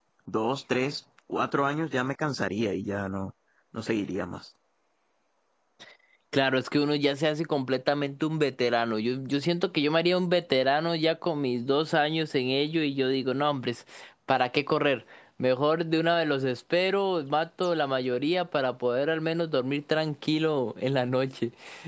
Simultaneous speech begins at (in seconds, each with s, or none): none